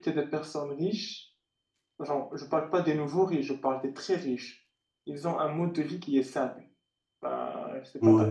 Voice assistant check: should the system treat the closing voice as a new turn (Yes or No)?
No